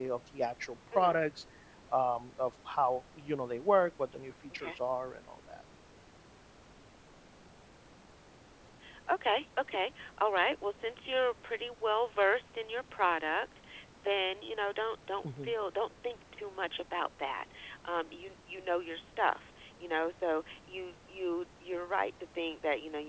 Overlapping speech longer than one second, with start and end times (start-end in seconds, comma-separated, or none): none